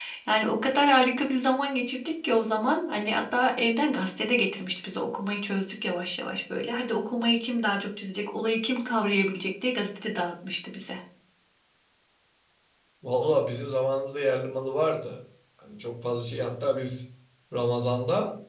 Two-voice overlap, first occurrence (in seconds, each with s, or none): none